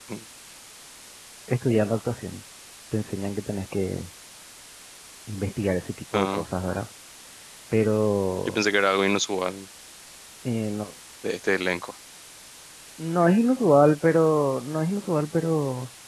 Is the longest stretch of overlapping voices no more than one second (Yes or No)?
Yes